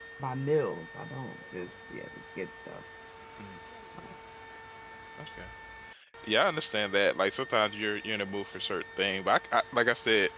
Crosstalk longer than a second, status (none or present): none